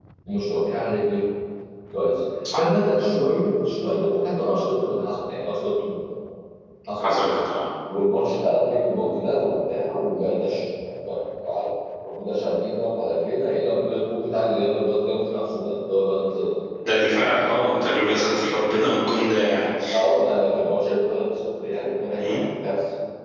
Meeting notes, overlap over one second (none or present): none